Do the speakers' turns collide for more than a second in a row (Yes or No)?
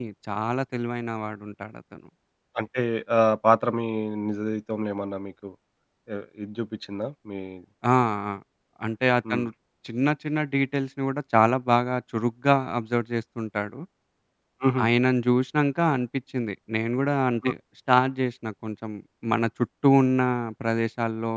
No